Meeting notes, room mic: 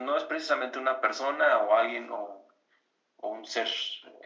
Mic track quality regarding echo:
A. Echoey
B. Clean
A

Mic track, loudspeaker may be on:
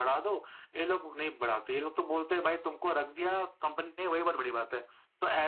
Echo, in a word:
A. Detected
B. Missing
A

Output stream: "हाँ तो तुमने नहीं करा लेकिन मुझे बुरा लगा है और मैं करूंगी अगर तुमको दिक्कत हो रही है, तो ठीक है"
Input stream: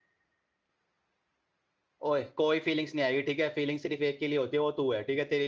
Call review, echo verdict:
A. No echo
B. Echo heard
A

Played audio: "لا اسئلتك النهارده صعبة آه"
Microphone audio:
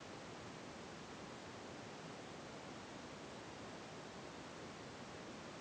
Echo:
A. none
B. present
A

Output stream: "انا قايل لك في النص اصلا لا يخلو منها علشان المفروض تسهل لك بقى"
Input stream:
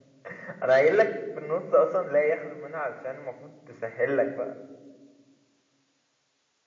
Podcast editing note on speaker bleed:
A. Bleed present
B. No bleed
A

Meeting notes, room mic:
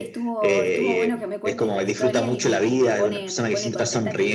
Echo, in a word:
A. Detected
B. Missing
A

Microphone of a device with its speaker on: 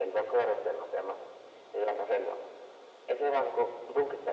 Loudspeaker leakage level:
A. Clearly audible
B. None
A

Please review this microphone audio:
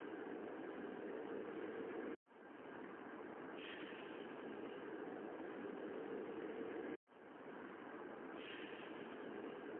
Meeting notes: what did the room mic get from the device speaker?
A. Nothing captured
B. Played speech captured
A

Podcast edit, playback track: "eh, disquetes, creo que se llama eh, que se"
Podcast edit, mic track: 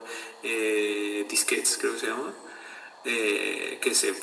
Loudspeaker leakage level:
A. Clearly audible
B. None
A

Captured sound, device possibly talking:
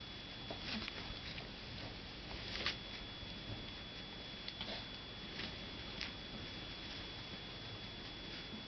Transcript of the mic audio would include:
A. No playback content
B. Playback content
A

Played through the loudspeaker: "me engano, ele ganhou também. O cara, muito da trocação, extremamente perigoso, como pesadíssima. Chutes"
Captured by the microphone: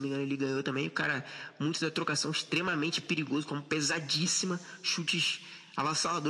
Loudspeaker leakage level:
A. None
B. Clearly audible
B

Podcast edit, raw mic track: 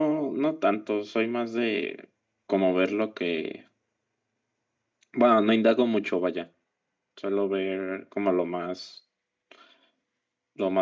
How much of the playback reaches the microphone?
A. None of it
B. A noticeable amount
B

